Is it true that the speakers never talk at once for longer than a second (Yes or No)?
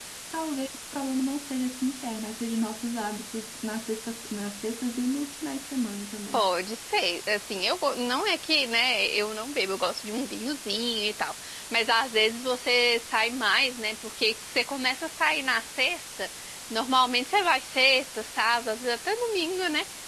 Yes